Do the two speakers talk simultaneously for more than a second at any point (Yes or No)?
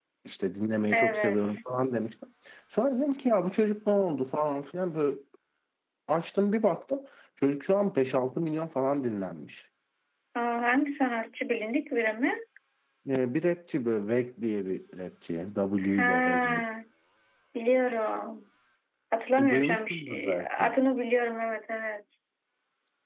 Yes